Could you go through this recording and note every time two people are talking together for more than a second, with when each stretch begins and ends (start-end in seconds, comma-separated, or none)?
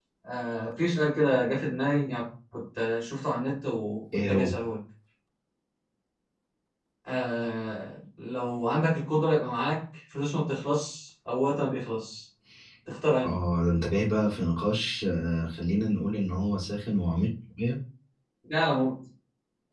none